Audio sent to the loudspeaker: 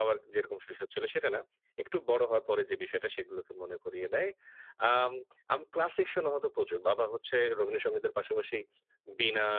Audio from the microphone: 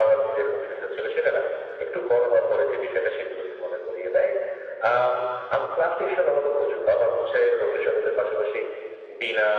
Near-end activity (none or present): none